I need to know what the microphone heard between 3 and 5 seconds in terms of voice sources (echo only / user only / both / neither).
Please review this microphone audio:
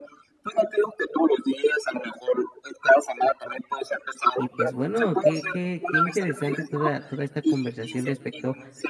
both